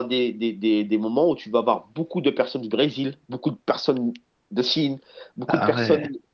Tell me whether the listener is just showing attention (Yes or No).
Yes